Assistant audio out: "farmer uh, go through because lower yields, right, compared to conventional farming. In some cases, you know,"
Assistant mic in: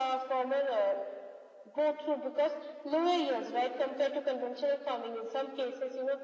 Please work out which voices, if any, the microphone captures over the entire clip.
echo only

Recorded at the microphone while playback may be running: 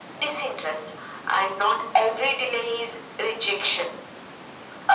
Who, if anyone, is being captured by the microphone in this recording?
echo only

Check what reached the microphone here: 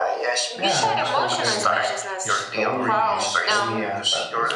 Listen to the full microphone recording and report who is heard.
both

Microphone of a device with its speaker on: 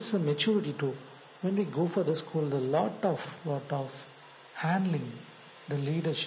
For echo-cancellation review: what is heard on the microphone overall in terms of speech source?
echo only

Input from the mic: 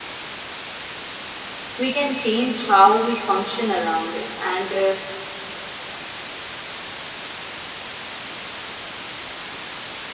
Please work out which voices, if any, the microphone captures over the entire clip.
user only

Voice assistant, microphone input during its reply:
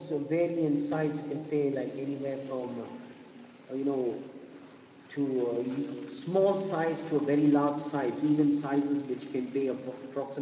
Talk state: echo only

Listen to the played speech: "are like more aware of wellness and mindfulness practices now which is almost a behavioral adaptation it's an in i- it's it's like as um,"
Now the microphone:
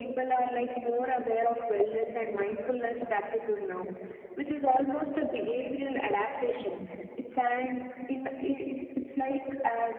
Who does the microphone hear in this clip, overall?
echo only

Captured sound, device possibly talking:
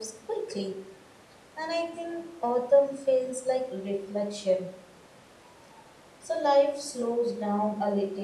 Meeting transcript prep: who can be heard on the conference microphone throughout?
echo only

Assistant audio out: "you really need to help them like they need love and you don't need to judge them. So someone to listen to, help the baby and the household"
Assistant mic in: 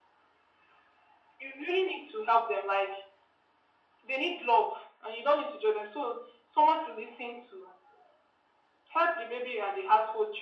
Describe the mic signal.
echo only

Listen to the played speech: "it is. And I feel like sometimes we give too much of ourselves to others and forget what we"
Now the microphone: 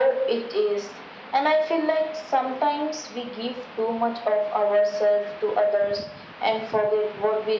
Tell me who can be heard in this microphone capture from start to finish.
echo only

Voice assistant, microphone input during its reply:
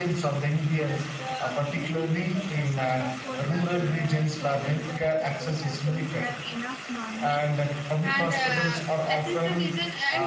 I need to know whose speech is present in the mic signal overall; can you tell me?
both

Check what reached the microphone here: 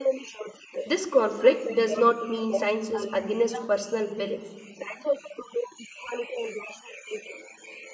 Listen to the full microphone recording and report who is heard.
both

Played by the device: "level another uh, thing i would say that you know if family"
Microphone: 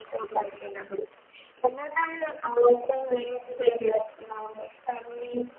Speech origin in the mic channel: echo only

